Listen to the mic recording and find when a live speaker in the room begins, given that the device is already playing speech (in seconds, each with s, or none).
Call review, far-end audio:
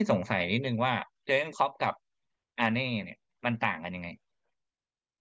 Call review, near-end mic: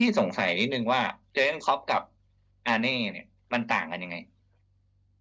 none